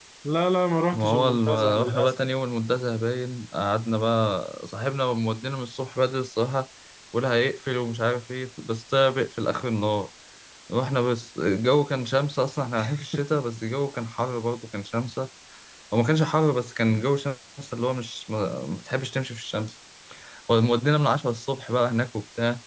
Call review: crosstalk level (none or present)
present